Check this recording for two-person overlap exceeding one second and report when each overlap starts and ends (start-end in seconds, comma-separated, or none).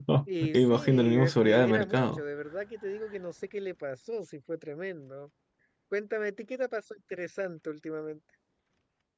0.5-2.2